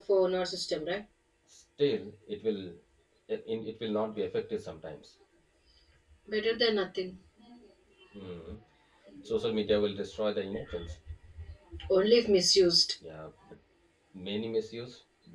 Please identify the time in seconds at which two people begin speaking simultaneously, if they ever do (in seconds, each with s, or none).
none